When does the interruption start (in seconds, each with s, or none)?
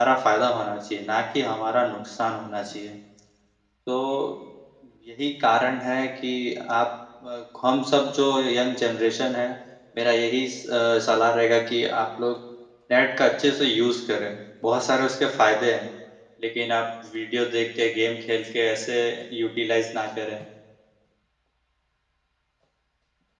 none